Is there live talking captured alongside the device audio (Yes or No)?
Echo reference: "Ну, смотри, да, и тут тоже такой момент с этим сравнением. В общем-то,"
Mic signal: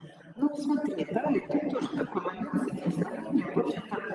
Yes